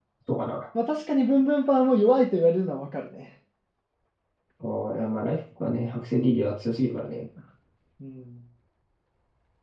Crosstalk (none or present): none